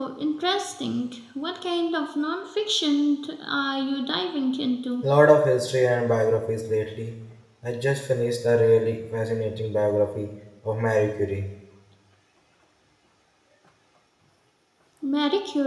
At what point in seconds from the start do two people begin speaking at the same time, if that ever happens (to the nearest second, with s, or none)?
none